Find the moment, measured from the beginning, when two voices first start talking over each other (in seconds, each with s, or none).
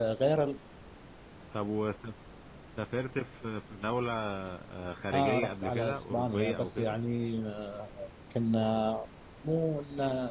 5.1 s